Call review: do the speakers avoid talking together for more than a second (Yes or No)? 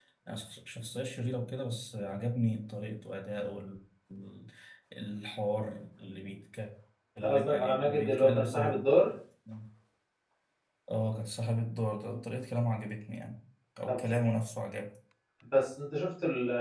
No